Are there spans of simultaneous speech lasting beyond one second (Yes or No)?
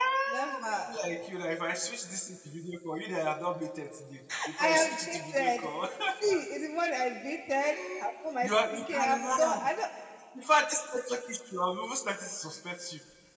Yes